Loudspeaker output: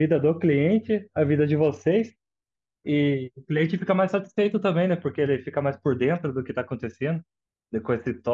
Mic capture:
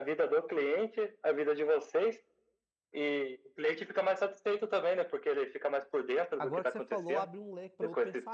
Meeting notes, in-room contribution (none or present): present